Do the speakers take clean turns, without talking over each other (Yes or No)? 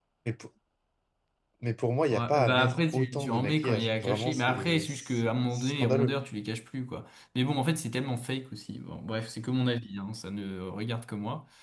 No